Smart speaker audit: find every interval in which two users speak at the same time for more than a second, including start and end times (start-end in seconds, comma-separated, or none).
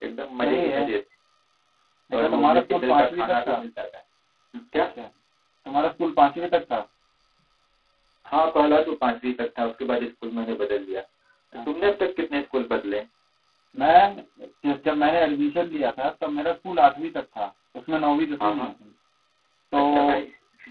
2.1-3.6